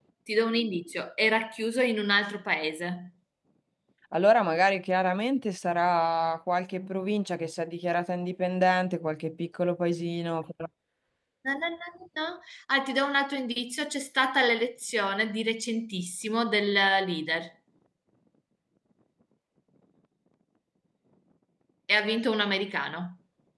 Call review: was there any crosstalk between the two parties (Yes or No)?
No